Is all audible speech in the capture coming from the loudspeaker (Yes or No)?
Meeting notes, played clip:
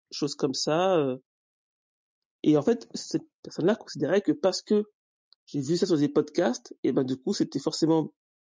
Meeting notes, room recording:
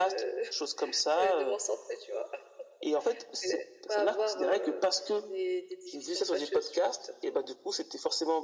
No